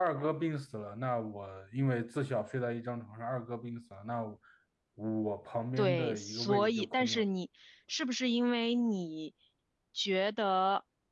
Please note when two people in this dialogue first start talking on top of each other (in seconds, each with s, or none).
5.8 s